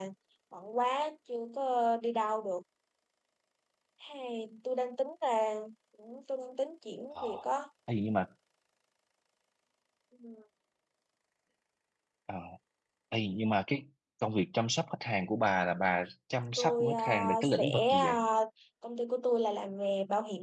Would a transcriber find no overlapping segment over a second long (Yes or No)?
No